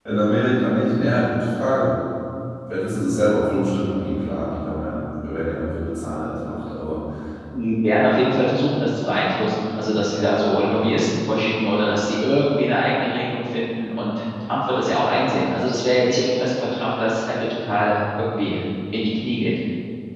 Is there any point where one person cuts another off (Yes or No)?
No